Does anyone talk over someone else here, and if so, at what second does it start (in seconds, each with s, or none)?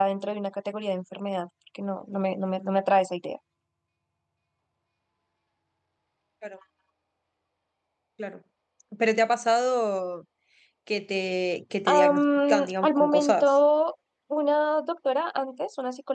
11.9 s